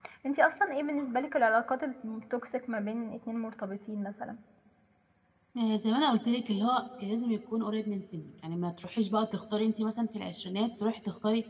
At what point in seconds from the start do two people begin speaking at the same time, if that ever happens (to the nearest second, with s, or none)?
none